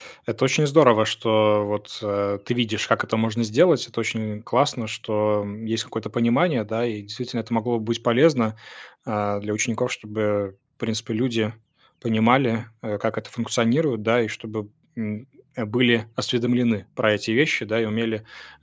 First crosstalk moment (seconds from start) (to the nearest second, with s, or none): none